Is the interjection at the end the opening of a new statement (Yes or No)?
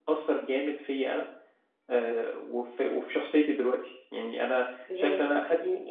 Yes